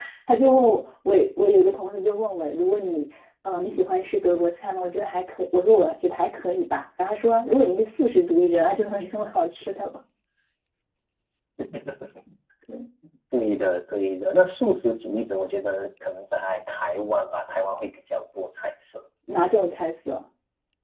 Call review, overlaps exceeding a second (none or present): none